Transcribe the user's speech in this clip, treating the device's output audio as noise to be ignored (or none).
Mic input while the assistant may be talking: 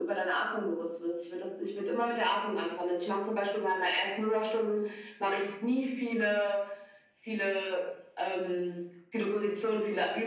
none